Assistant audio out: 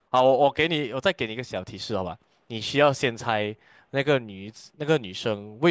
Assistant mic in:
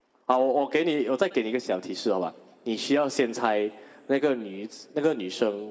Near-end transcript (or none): none